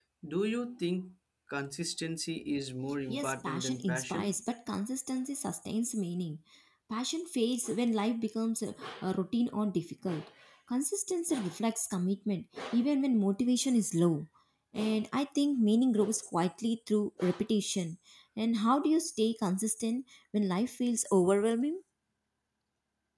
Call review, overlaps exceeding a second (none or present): present